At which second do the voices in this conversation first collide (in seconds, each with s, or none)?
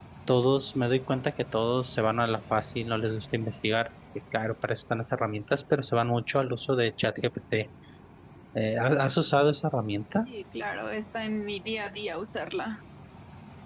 none